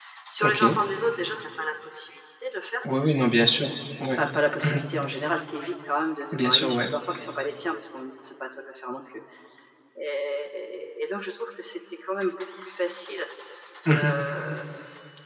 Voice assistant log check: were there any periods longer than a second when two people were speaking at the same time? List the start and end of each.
none

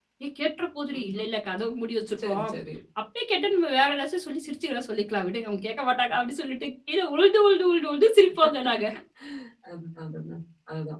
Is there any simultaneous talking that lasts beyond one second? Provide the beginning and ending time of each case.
none

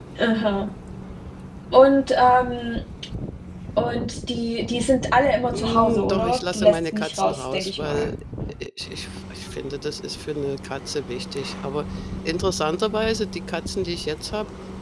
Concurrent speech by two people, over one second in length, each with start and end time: 5.5-8.1

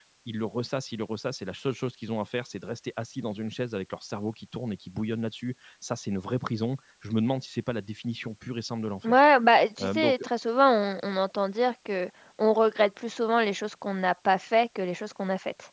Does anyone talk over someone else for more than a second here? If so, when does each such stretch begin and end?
none

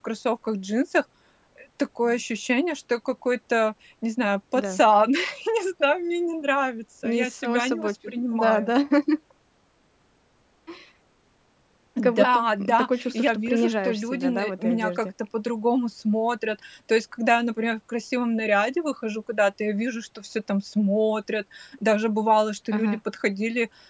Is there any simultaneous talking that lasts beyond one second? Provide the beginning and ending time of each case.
7.0-8.7, 12.0-15.1

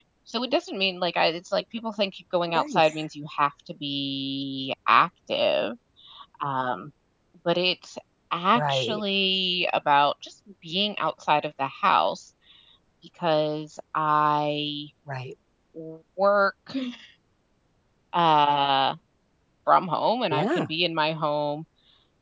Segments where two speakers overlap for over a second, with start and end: none

